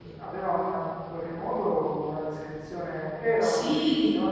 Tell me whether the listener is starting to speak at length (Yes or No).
No